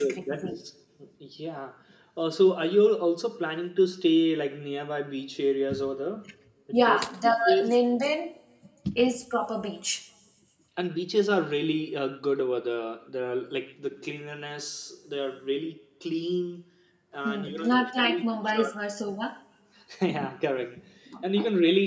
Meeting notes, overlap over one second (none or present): present